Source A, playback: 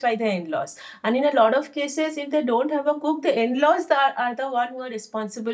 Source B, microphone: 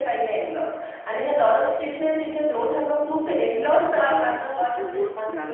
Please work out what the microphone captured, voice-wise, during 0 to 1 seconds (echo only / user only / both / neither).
echo only